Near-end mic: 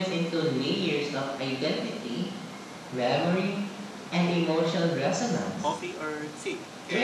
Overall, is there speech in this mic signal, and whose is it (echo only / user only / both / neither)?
both